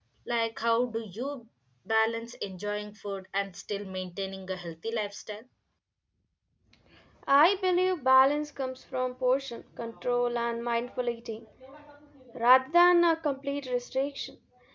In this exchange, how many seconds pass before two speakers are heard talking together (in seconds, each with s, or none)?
none